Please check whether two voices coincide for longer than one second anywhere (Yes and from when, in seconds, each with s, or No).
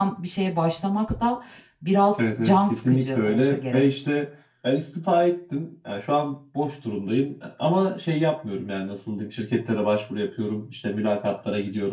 Yes, from 2.2 s